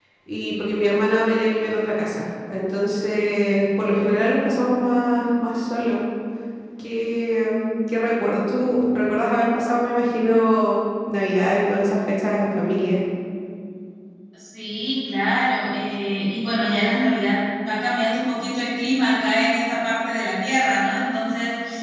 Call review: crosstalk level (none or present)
none